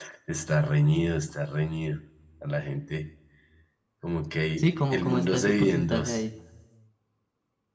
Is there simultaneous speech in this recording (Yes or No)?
Yes